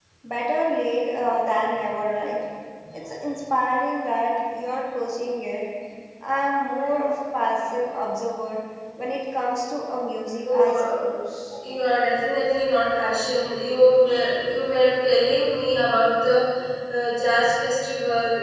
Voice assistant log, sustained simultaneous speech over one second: none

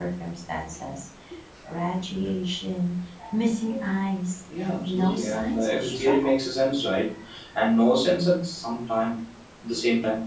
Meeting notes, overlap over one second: present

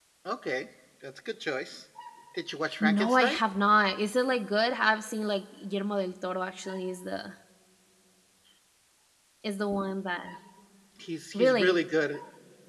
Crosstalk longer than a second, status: none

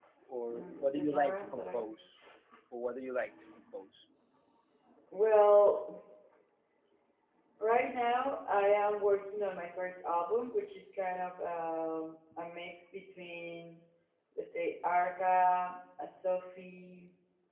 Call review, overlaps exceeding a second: present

